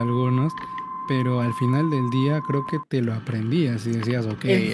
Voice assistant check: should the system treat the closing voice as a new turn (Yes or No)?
Yes